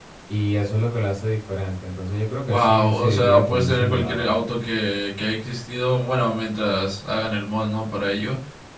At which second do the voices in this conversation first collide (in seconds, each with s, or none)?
2.5 s